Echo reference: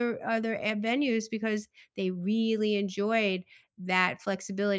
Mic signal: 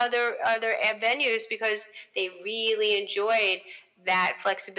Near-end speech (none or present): none